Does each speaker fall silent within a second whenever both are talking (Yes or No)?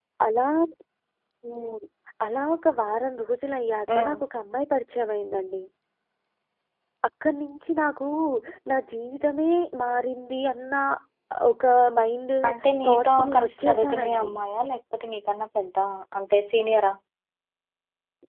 No